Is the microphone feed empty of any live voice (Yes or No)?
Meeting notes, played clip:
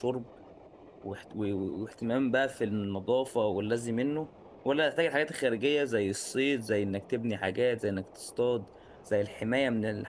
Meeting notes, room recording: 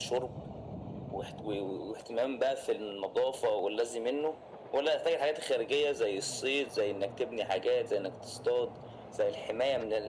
Yes